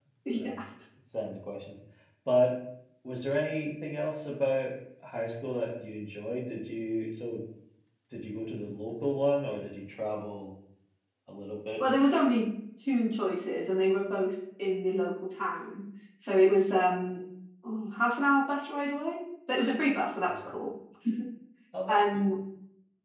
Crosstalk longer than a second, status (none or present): none